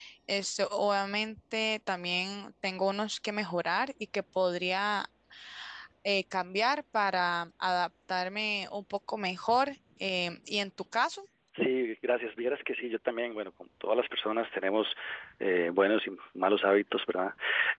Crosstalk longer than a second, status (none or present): none